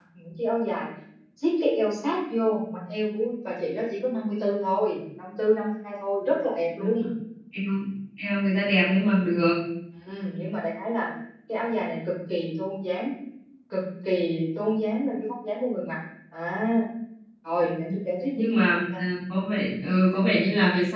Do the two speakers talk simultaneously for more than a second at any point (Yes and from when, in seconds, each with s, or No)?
No